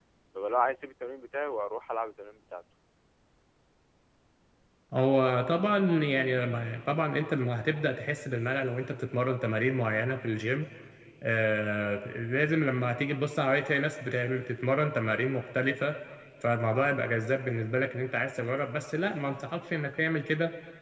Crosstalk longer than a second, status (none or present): none